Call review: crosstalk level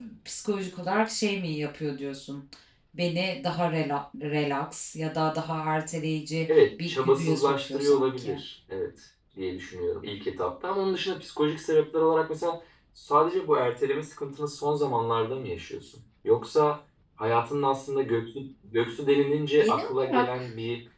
present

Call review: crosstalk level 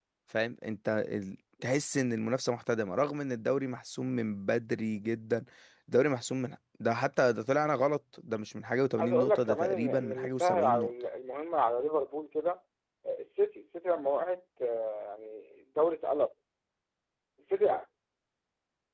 present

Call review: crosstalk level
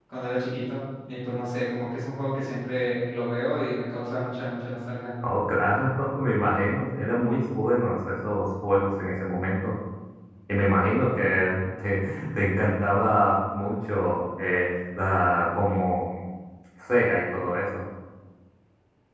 none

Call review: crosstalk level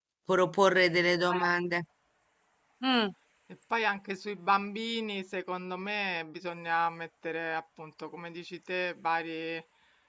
none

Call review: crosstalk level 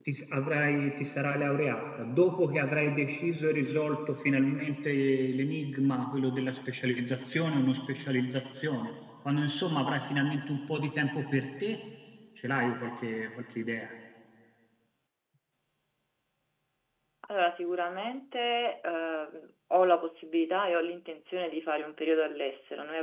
none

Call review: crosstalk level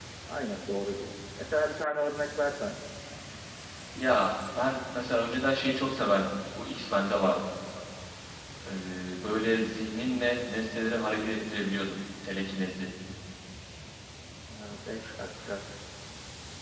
none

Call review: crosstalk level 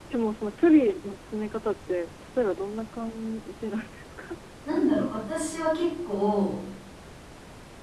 none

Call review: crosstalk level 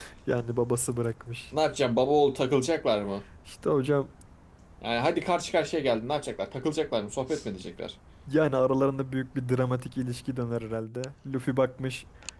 none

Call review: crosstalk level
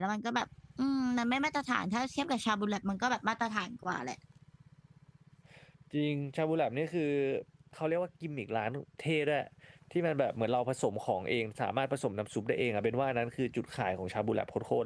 none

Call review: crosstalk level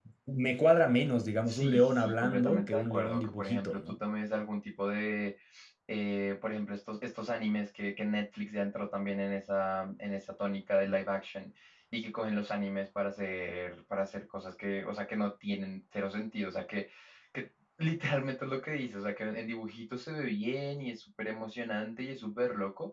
present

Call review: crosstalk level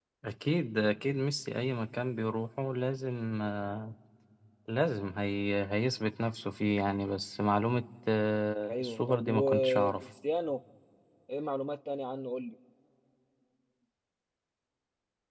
present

